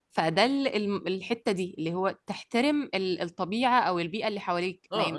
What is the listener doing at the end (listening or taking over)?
taking over